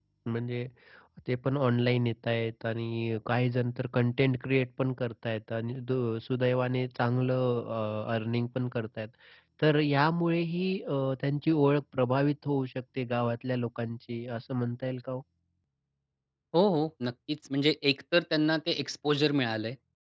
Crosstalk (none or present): none